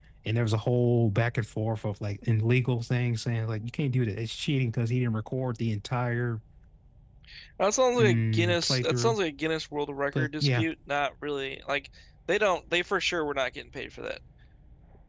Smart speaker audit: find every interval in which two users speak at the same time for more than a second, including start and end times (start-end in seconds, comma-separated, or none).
8.0-9.2